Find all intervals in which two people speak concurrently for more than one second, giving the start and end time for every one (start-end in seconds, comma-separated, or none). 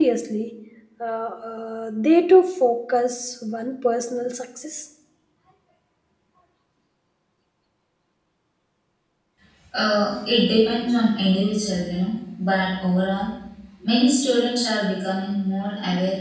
none